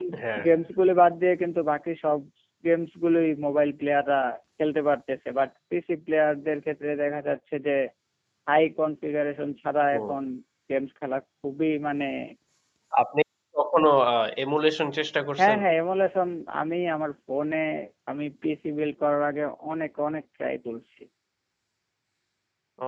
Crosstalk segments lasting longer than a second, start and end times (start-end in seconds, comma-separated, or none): none